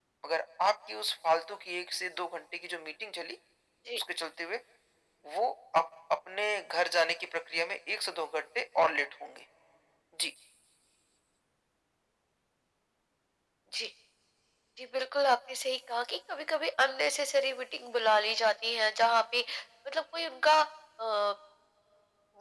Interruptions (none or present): none